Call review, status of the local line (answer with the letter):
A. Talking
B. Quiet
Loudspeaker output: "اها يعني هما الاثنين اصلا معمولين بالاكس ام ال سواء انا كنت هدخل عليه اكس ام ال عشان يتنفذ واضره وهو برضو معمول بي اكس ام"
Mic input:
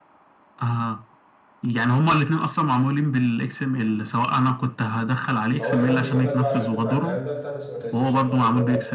A